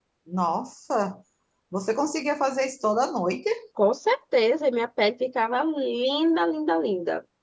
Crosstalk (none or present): none